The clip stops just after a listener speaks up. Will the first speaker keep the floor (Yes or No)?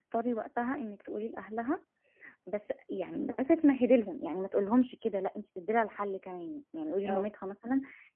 Yes